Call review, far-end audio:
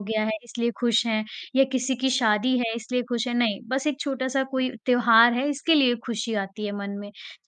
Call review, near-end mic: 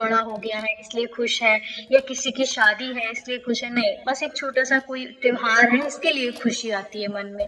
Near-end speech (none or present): none